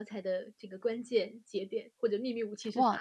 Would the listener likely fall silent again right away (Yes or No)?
No